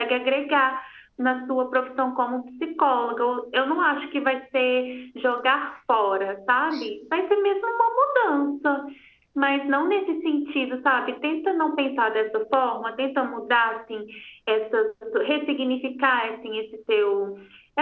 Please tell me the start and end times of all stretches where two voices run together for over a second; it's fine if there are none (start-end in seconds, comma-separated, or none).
none